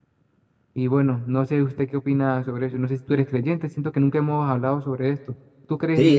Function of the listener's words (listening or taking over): taking over